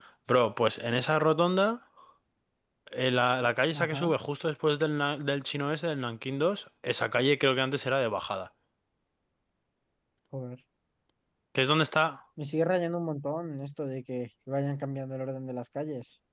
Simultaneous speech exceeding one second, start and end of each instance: none

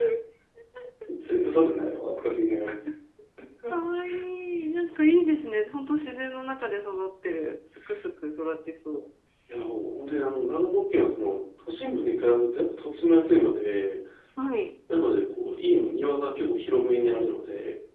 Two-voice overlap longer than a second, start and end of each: none

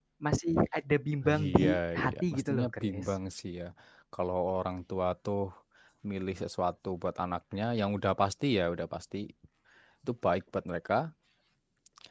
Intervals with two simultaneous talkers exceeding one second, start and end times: 1.4-3.1

